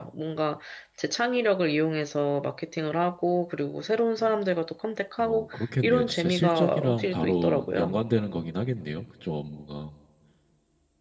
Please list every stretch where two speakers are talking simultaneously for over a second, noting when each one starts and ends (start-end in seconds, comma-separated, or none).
5.2-8.0